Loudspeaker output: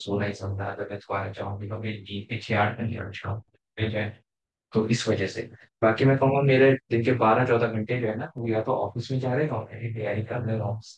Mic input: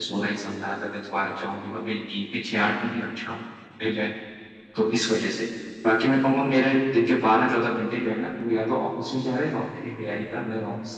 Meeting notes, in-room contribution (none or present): none